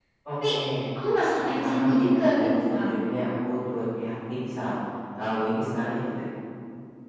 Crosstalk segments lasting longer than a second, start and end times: 1.6-2.9

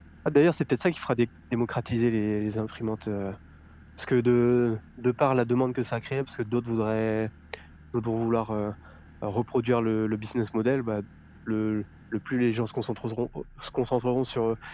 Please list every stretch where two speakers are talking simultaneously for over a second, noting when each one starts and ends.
none

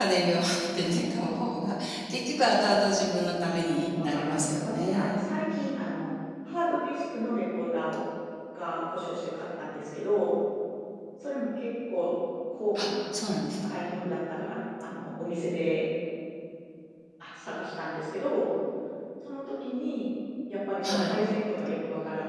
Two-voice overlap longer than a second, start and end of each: 4.0-5.3

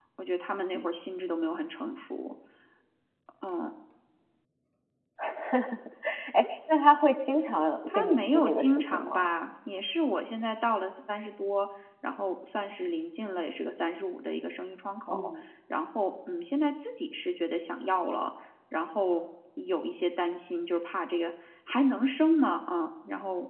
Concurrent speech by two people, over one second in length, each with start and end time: 7.9-9.3

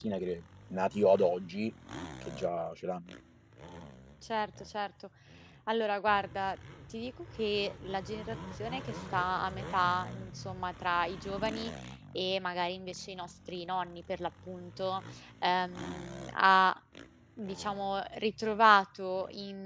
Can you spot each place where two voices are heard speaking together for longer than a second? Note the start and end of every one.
none

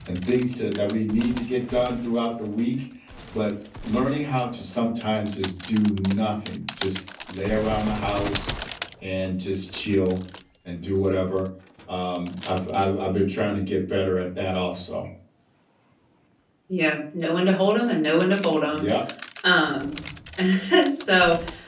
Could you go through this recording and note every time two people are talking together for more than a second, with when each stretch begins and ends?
none

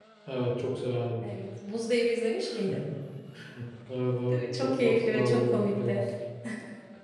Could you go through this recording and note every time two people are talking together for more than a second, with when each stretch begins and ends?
4.3-6.0

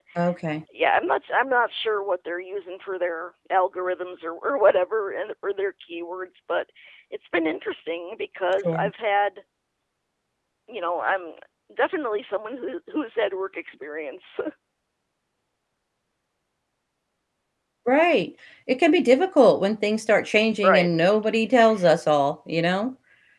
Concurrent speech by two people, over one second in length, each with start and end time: none

